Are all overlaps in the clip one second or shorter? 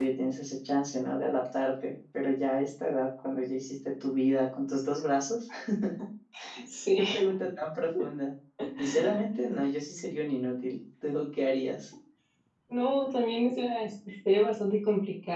Yes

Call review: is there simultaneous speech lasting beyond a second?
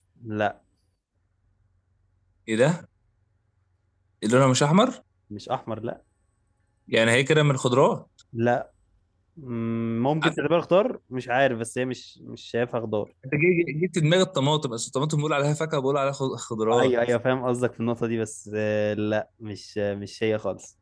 No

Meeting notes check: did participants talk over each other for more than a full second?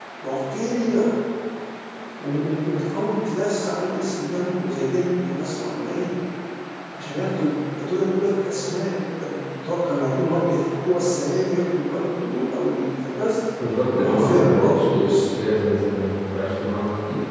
Yes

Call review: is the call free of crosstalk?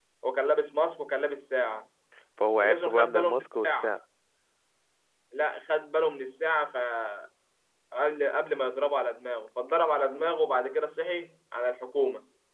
No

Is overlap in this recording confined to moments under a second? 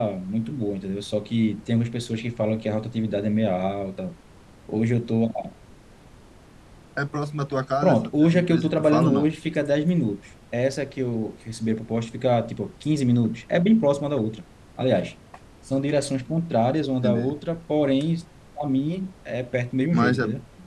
No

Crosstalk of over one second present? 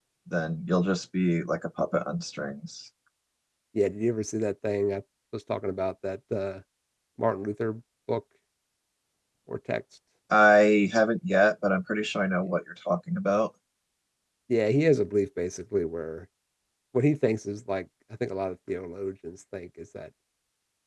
No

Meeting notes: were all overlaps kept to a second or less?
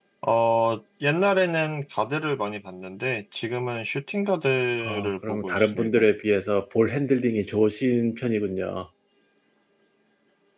No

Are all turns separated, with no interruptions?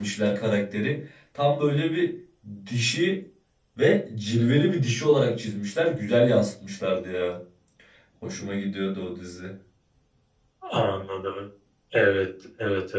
Yes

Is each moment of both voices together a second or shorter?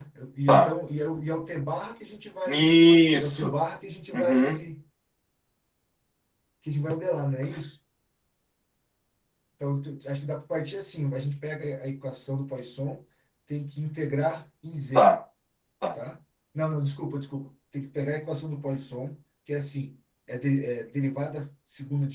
Yes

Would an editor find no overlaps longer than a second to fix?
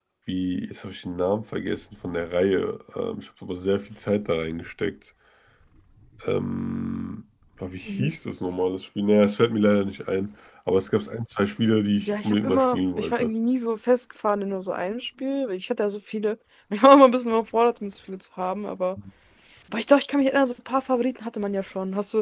No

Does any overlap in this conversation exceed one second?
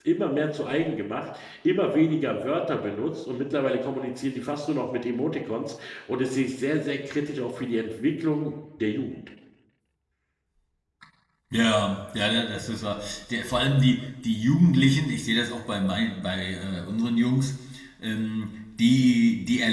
No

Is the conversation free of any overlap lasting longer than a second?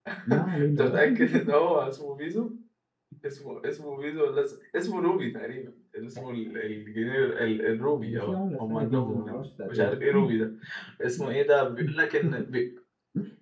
No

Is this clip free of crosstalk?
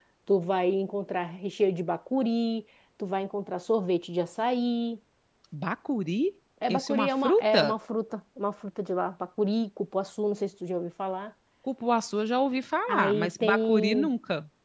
No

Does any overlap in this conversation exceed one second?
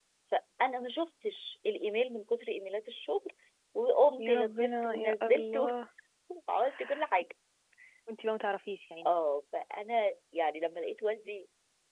Yes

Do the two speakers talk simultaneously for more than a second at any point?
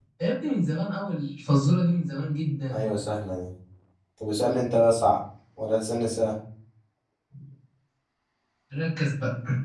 No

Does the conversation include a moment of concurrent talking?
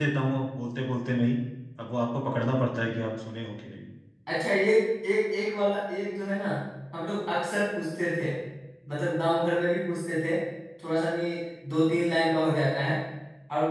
No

